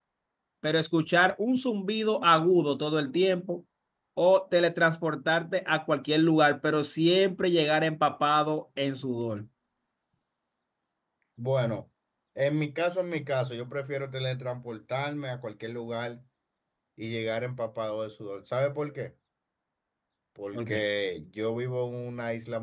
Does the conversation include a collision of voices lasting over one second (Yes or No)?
No